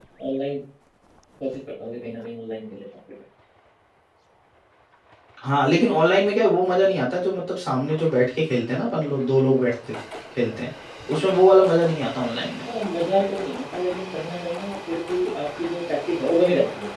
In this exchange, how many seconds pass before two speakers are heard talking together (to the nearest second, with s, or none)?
none